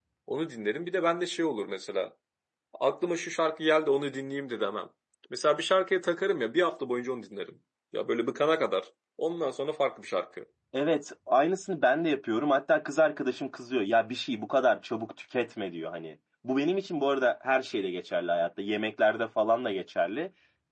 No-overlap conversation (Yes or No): Yes